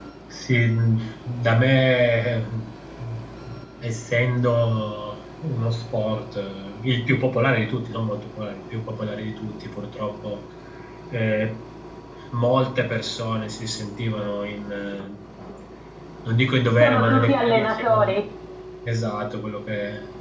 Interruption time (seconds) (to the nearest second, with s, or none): 17 s